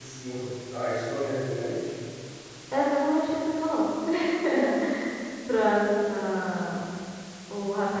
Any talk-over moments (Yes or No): No